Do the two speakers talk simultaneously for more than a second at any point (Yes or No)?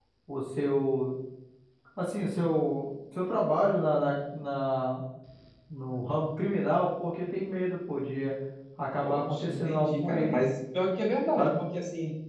Yes